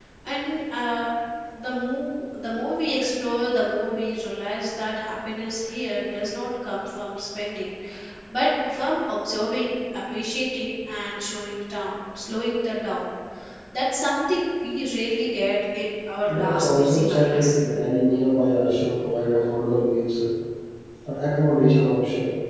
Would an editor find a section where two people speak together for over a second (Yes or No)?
Yes